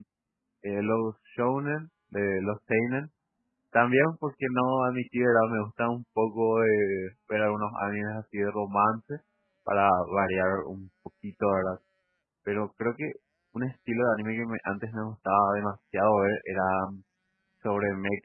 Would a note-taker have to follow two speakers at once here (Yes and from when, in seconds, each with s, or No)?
No